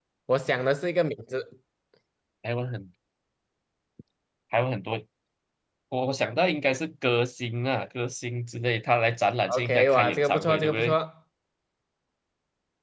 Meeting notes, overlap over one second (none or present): present